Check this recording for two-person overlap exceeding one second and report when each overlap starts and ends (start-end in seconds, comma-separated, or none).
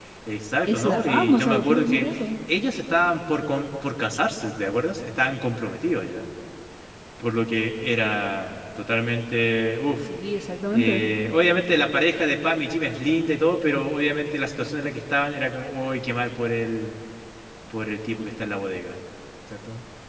0.7-2.0